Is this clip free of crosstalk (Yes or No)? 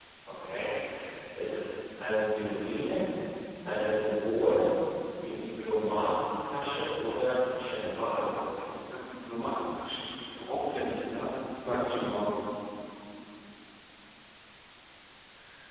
Yes